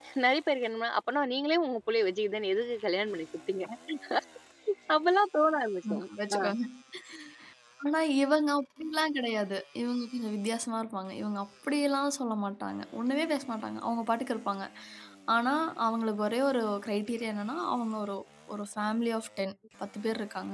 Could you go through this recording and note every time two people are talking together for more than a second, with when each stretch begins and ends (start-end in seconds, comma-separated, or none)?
none